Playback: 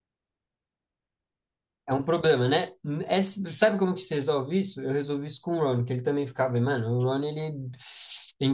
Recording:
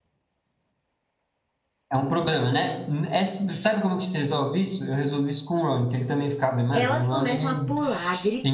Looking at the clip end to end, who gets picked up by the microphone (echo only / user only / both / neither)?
both